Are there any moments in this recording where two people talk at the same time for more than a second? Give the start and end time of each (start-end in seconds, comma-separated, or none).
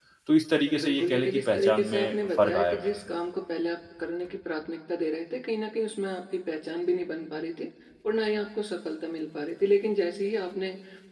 0.8-3.0